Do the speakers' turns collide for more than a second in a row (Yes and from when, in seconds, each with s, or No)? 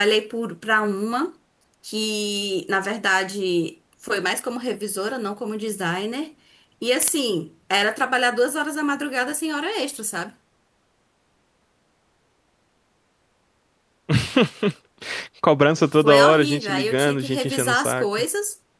Yes, from 15.9 s